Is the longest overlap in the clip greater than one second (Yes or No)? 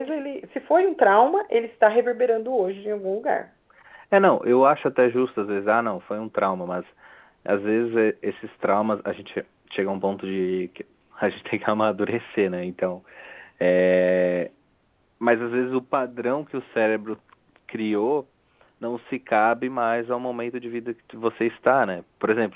No